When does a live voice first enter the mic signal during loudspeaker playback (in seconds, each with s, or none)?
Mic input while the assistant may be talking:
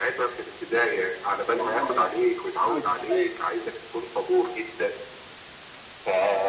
1.5 s